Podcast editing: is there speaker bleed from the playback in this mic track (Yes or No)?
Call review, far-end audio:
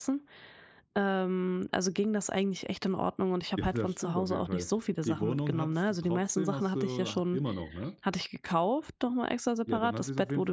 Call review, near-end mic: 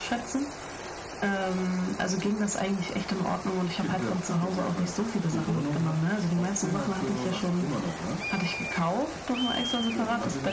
Yes